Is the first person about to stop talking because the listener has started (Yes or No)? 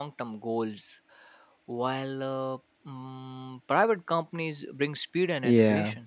Yes